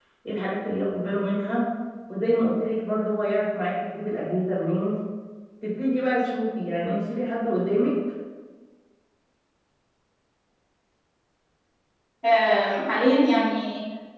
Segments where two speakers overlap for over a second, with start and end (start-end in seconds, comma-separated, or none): none